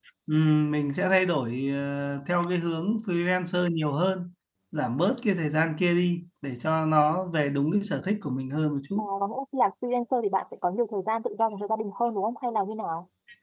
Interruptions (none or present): none